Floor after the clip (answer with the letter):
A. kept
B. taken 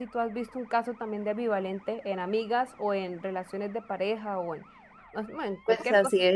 B